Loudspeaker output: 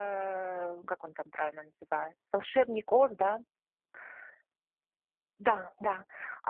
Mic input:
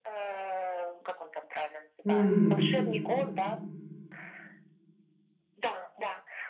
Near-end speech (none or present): present